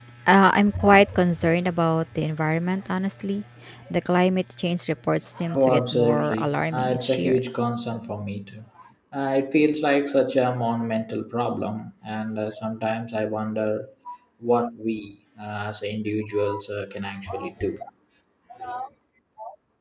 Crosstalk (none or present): present